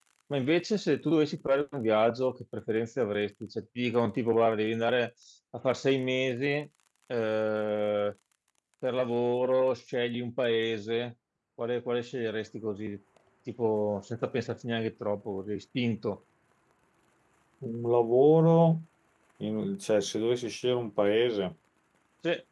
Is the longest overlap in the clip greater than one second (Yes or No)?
No